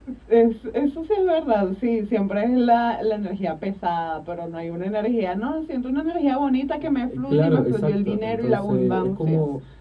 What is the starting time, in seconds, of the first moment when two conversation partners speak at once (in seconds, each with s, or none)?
6.8 s